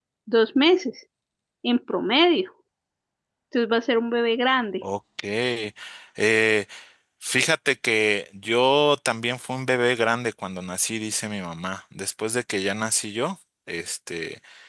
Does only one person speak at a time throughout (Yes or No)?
Yes